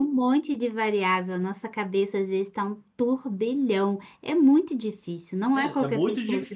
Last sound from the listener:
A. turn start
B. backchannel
A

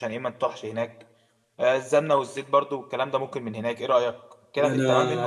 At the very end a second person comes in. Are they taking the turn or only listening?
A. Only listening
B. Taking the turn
B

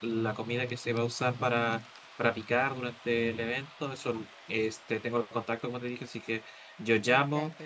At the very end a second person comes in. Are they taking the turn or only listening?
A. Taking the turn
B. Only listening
B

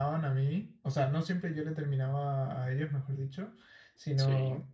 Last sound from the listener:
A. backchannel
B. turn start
A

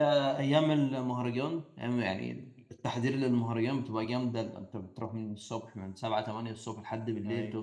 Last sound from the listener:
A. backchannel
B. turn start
A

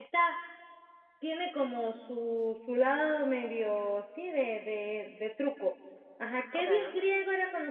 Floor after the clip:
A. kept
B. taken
A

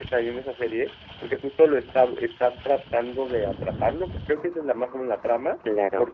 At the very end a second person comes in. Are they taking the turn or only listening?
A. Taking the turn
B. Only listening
B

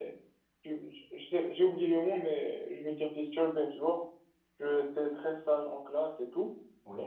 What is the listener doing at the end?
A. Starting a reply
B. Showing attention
B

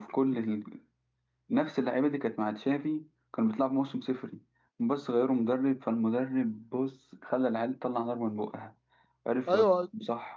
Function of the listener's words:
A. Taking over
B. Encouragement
A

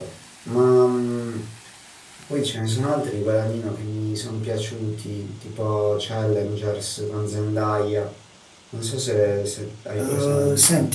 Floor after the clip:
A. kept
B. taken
B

